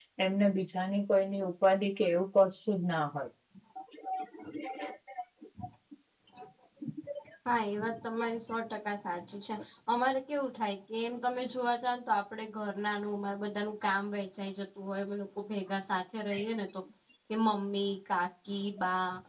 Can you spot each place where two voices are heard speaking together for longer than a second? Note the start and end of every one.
none

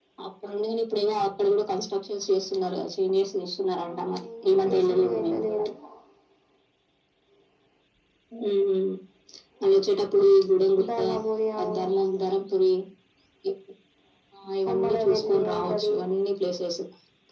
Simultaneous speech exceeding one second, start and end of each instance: 3.9-5.6, 14.7-15.9

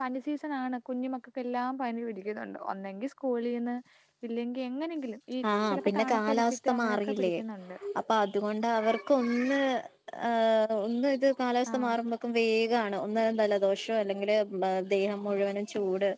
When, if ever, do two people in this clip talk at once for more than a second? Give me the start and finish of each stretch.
5.7-7.3

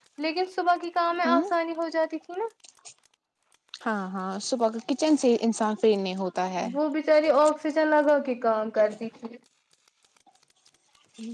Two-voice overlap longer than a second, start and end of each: none

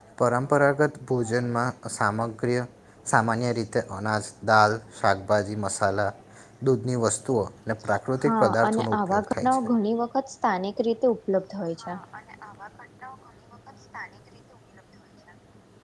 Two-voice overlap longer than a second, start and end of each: 8.2-9.6

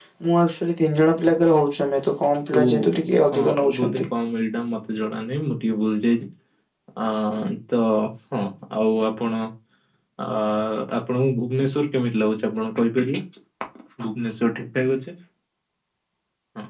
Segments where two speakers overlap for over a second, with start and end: 2.6-4.0

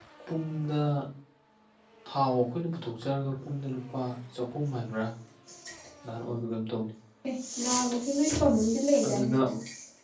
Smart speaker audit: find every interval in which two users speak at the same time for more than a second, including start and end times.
none

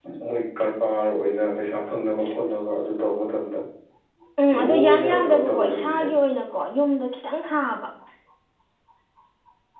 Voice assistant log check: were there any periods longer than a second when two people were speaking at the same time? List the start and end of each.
4.5-6.0

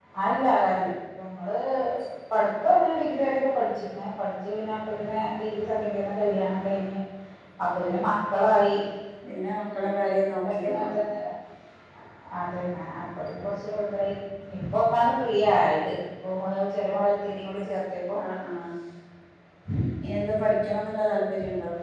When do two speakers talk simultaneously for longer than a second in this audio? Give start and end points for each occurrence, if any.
none

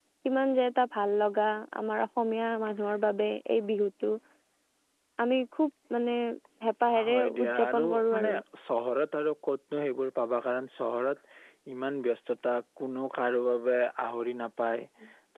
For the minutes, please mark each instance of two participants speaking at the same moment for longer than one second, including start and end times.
7.1-8.3

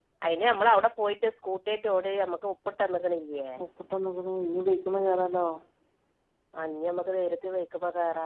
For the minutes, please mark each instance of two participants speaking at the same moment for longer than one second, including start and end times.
none

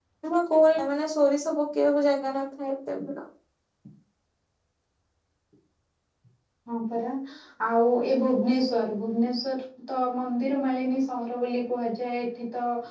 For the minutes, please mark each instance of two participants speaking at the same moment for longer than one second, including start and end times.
none

